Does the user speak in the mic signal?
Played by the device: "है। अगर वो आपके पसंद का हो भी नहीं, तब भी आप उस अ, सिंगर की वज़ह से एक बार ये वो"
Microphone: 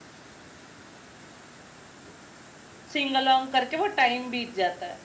Yes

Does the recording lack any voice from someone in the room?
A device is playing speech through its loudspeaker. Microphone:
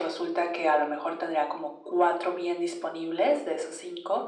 Yes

